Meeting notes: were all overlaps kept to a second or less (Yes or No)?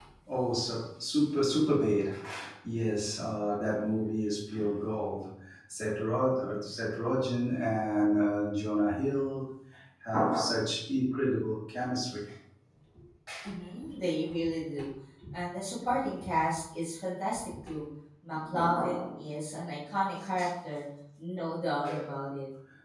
Yes